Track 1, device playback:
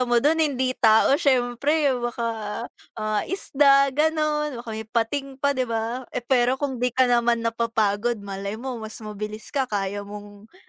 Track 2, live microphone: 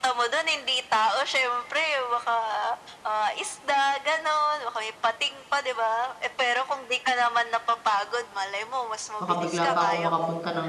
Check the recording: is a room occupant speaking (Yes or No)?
Yes